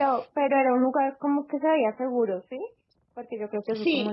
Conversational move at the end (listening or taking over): taking over